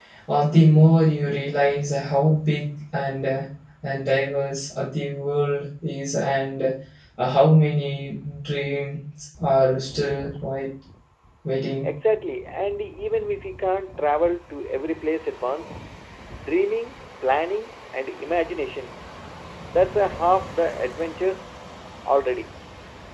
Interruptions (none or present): none